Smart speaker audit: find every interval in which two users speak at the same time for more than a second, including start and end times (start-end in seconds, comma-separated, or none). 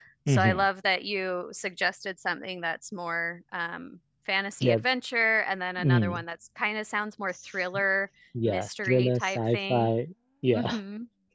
8.4-9.9